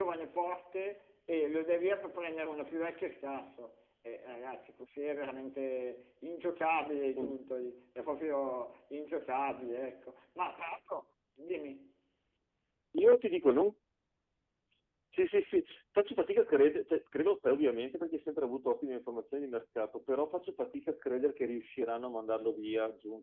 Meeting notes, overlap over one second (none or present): none